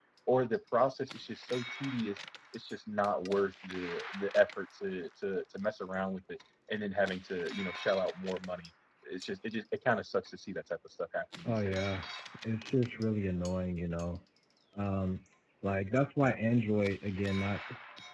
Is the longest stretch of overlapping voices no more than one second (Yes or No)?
Yes